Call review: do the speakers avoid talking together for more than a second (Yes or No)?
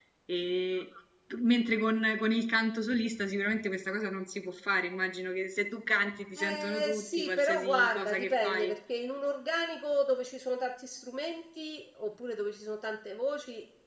No